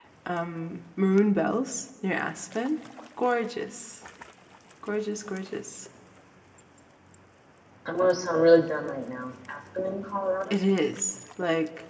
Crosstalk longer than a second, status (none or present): none